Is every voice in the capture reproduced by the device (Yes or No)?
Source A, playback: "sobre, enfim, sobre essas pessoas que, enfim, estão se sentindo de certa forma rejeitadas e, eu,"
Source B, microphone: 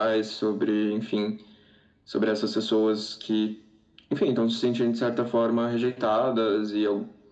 Yes